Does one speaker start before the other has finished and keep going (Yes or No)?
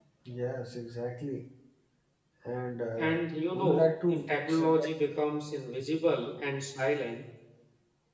Yes